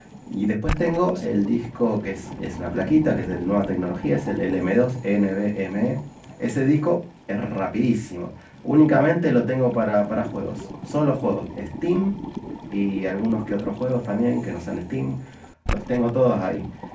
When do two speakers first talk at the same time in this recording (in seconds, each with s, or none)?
none